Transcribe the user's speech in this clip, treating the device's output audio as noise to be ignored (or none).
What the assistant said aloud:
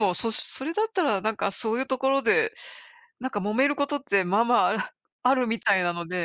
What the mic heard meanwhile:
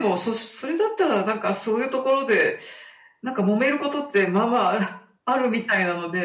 none